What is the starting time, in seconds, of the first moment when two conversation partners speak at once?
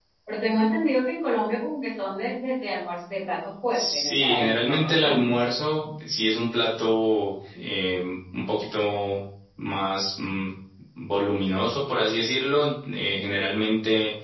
3.7 s

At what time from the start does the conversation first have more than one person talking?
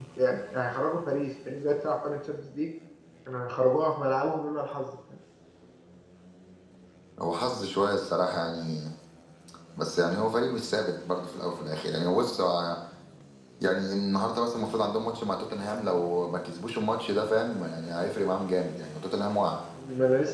none

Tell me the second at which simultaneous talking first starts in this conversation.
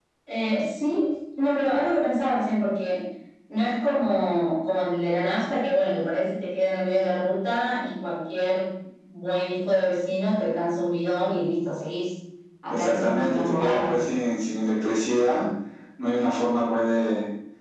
12.7 s

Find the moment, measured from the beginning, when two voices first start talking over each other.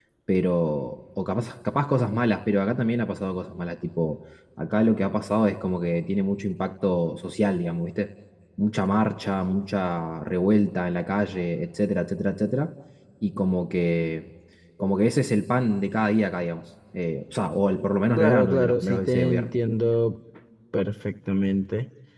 18.2 s

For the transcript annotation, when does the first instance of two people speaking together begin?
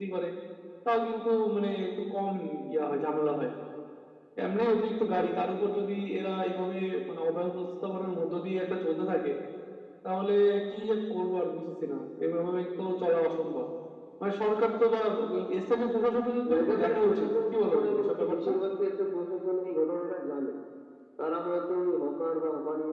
16.5 s

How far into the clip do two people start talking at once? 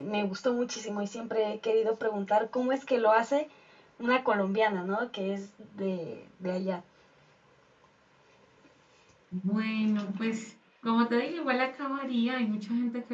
none

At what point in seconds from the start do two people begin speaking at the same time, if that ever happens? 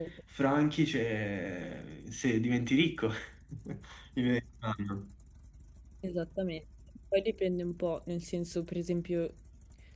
none

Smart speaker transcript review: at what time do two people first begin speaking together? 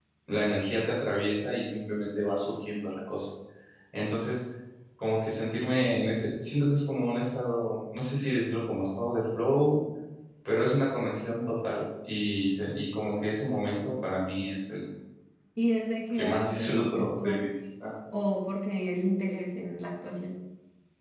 16.1 s

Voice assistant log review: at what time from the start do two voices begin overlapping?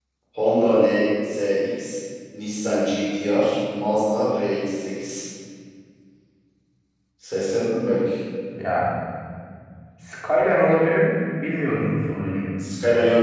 none

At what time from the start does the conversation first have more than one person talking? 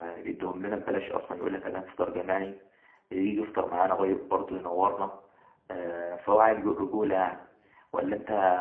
none

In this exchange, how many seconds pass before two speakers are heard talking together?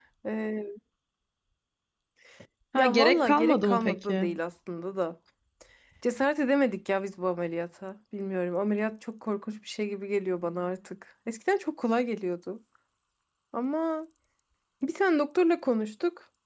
2.8 s

